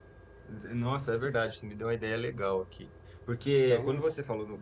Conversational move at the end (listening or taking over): listening